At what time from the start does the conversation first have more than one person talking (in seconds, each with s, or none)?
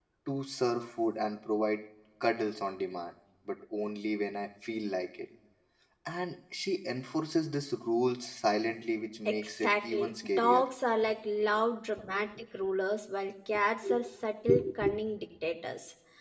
9.2 s